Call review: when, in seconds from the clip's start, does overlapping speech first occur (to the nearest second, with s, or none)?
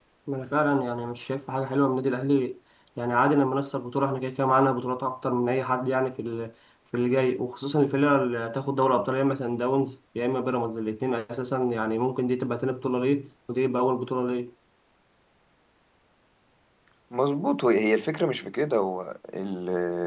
none